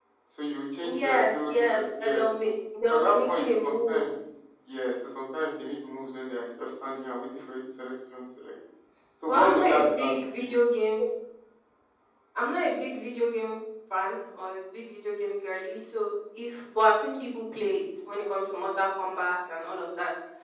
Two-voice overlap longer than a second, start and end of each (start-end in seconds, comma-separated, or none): 0.8-2.2, 2.9-4.1, 9.3-10.5